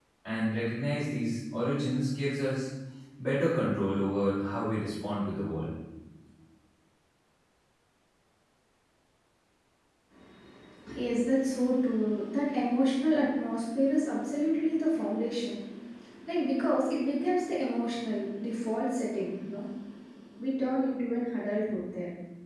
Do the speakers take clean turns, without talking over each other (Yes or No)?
Yes